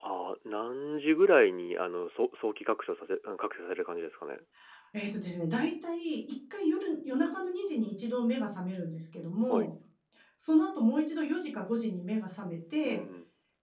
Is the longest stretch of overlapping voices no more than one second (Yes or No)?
Yes